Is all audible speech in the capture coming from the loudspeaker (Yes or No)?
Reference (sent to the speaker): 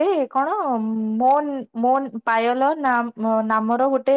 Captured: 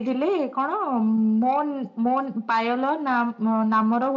Yes